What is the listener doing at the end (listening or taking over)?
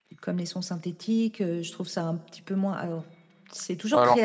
listening